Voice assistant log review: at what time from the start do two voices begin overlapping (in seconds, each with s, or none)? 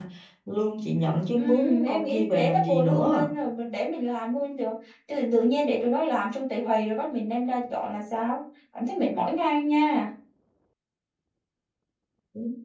1.4 s